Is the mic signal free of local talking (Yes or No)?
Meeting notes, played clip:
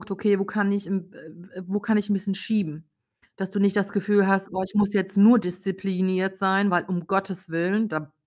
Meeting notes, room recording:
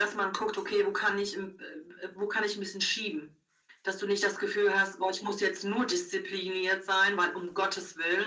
Yes